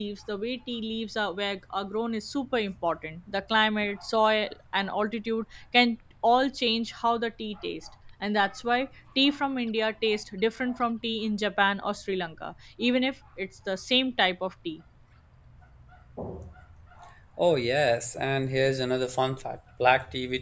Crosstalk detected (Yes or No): No